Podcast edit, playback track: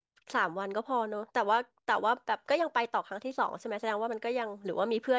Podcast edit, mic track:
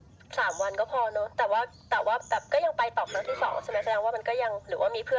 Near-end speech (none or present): present